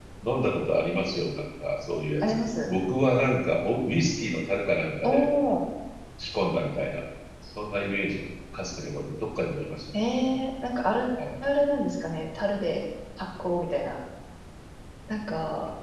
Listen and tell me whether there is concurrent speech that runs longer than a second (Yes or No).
No